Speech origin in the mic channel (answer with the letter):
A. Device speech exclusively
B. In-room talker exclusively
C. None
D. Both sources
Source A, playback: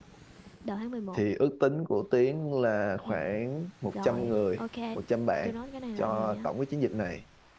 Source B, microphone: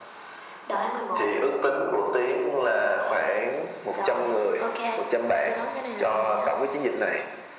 A